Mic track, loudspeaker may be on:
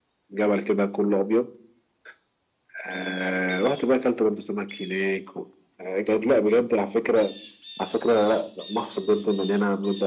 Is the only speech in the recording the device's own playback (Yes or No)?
Yes